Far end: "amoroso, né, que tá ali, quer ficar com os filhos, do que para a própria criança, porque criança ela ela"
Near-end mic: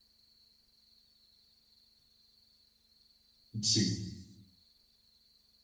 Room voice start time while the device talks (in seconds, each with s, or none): 3.6 s